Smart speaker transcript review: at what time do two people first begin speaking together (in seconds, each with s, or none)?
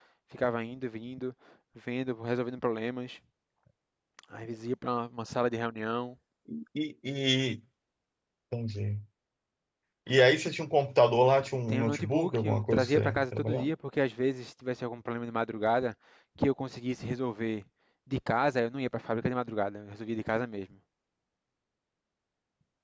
11.7 s